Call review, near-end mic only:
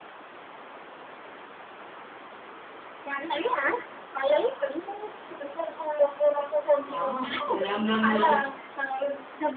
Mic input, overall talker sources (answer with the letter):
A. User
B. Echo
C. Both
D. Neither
C